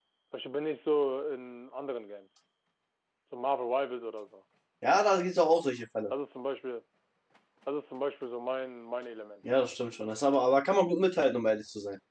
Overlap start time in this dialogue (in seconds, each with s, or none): none